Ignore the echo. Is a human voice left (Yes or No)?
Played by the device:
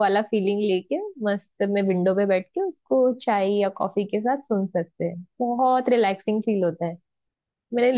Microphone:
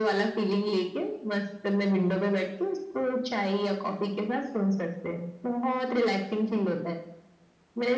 No